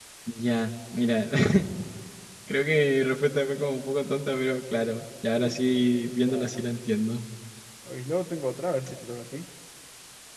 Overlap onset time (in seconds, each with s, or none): 5.4 s